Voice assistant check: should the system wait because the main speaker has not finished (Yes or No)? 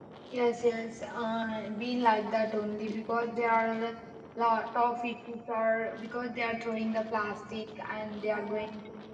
Yes